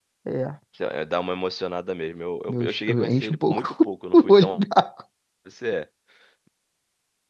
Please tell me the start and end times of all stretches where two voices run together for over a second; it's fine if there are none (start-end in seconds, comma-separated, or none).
2.5-4.6